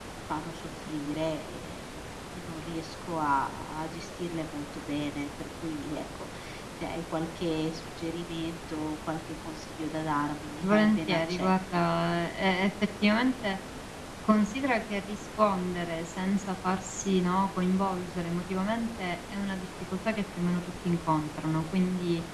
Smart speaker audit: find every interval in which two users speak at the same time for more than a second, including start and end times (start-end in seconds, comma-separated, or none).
10.6-11.8